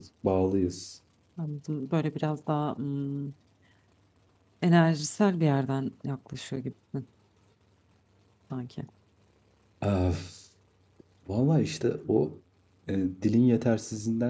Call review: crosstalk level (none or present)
none